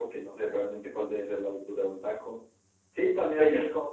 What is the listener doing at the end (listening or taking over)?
listening